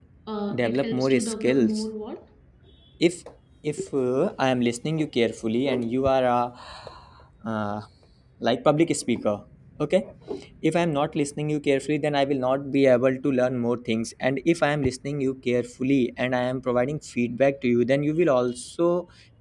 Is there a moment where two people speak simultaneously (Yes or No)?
Yes